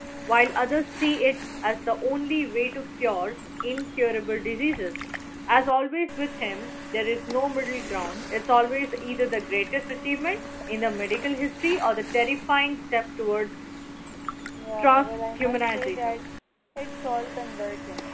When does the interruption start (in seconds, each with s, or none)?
14.8 s